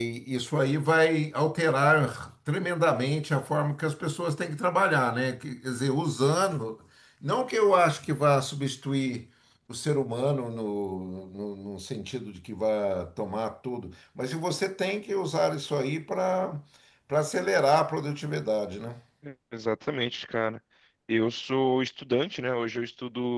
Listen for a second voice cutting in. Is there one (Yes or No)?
No